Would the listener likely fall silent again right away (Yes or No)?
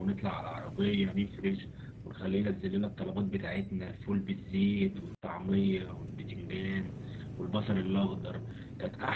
Yes